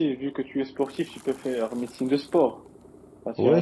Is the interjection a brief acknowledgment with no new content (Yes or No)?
No